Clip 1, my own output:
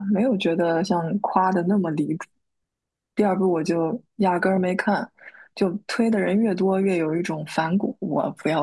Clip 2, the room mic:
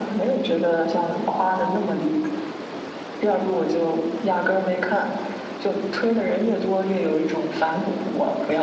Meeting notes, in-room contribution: none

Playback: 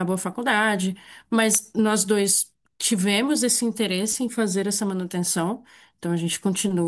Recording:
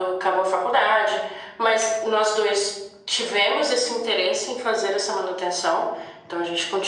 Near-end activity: none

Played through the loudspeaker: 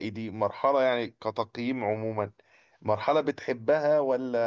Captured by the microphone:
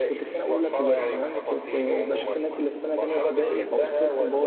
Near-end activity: present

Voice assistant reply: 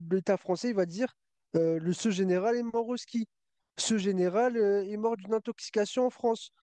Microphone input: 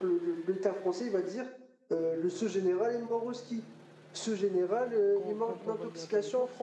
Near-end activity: present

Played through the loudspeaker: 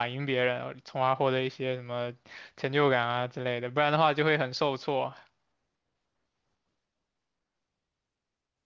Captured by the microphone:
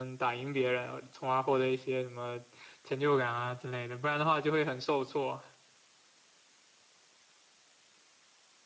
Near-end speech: none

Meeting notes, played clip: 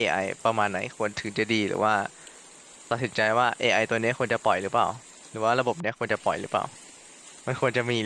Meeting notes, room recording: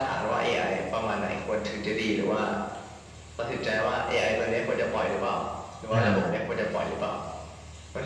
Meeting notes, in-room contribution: present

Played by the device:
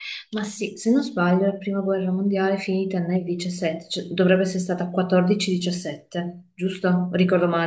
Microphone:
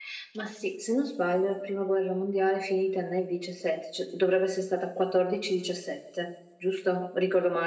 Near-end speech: none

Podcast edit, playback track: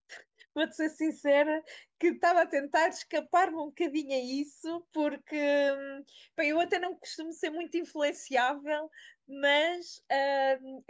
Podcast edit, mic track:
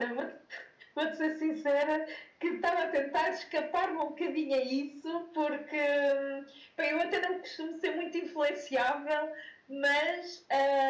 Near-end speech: none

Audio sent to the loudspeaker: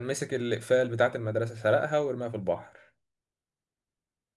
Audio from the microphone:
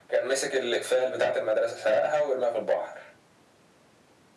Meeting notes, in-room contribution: none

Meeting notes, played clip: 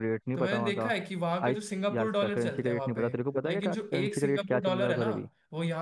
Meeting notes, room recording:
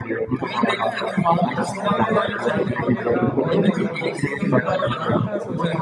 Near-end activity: present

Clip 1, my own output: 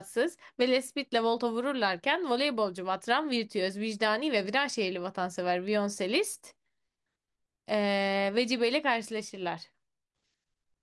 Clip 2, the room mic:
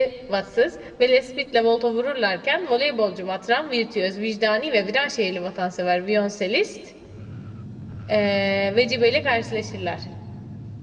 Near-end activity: none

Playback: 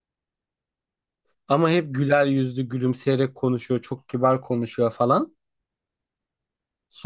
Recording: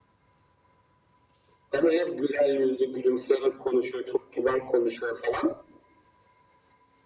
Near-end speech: none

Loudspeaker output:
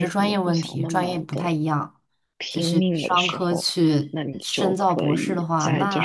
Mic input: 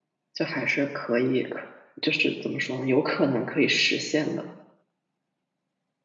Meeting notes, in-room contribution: present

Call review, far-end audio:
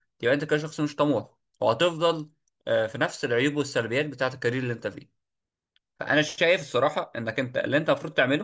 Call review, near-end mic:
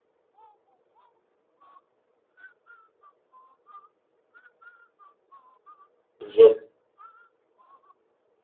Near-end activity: present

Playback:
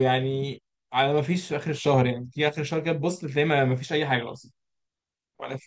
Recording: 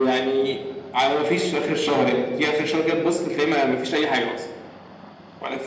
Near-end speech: none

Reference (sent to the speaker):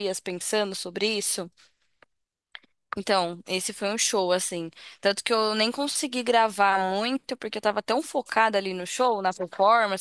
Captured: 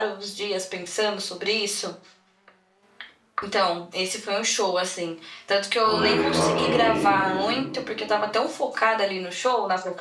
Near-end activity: present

